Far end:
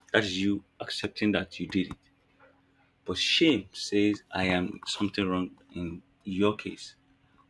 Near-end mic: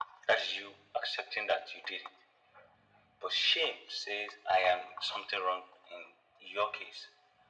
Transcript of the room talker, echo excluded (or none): none